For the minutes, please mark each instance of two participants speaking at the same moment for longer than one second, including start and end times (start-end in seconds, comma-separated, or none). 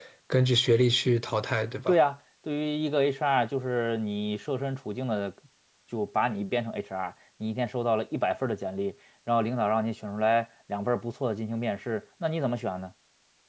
none